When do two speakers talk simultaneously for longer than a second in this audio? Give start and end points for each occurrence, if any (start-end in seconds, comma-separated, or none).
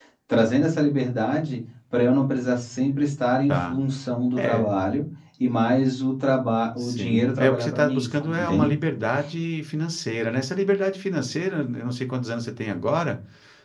6.8-8.7